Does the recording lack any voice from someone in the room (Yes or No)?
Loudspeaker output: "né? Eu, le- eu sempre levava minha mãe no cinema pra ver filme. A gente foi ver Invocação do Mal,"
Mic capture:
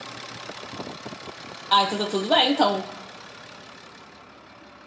No